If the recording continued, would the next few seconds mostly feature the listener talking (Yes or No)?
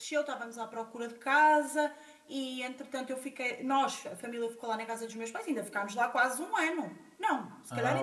No